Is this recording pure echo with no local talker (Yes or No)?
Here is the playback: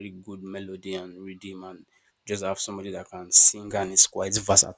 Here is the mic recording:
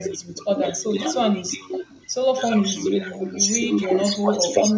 No